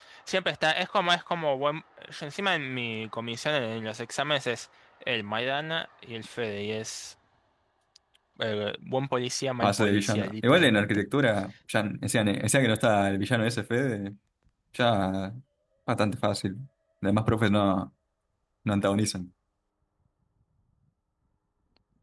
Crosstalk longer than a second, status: present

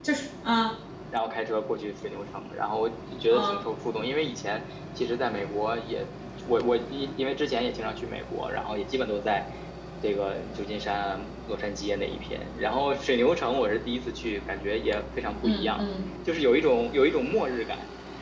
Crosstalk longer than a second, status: none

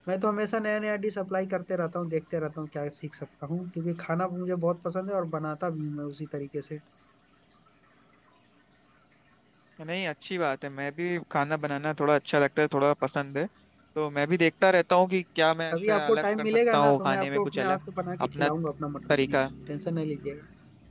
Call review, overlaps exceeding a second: present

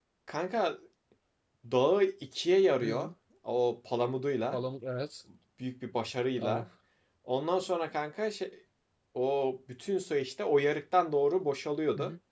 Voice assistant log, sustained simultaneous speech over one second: none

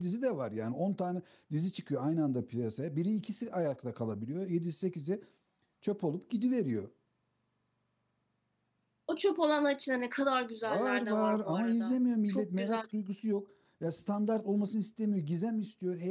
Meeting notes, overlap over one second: present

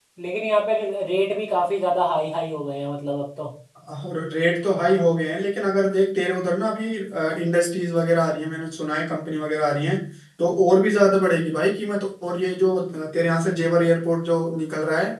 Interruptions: none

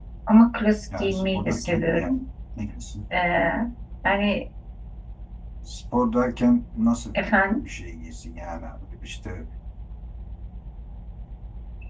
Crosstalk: present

